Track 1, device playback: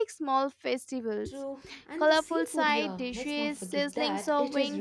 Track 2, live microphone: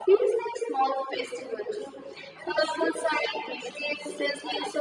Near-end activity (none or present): none